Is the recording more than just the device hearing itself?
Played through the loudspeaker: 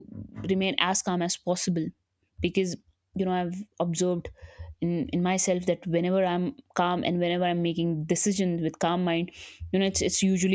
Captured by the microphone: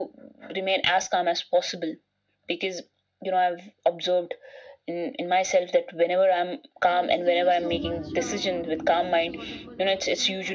Yes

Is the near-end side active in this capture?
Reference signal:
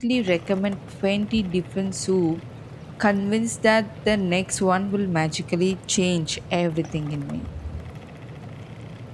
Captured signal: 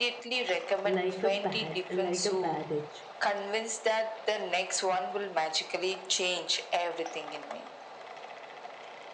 Yes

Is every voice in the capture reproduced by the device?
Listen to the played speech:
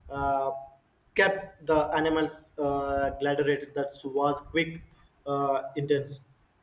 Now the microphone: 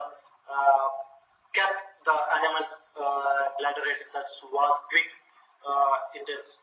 Yes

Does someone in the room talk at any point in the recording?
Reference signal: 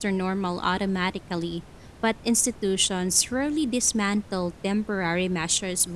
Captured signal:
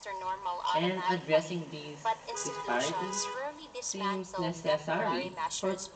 Yes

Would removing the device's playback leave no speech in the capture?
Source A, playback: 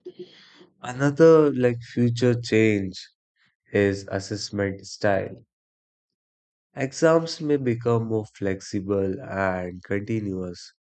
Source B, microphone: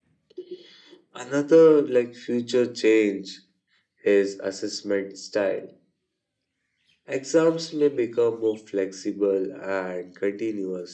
Yes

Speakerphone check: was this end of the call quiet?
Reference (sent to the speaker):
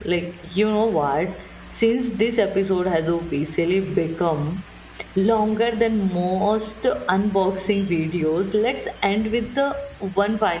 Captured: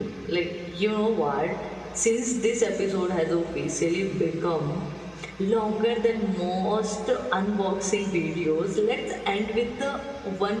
Yes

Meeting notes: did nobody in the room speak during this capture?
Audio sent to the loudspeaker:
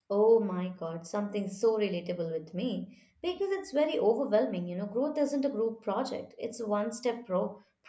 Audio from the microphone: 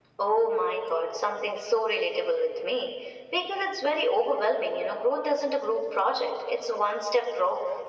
Yes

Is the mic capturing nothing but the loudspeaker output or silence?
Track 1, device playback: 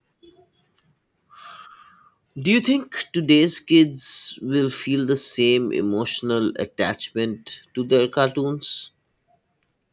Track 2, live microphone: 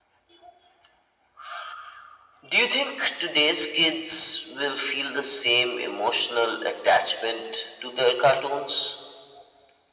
Yes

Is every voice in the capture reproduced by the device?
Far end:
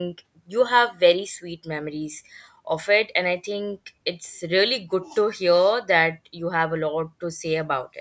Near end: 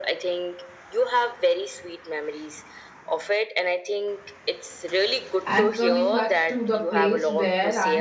No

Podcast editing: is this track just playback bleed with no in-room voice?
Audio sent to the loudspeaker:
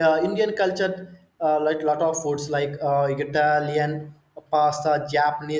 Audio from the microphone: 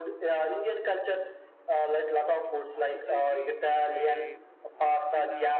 No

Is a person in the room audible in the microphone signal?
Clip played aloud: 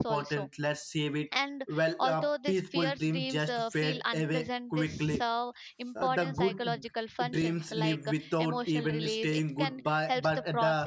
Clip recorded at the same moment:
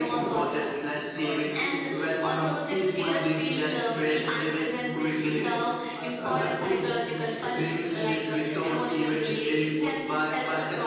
Yes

